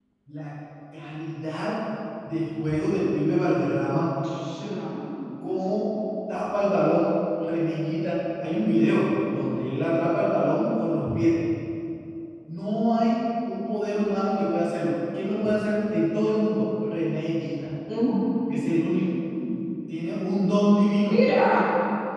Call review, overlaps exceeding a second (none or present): none